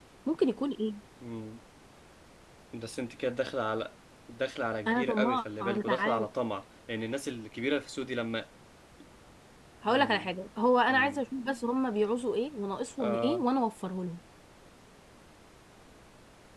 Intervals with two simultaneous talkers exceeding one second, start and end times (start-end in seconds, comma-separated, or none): 4.9-6.3